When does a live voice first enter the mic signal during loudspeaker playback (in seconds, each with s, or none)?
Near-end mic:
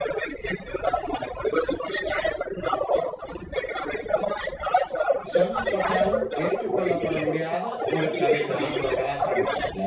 5.3 s